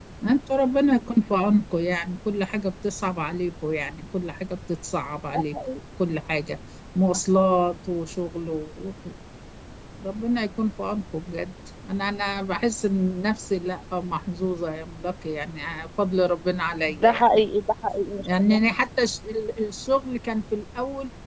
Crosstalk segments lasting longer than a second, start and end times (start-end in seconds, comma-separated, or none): none